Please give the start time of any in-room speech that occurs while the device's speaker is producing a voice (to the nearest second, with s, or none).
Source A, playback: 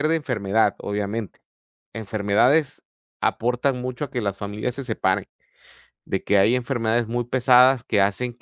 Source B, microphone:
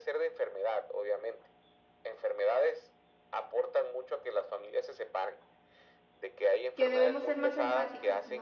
7 s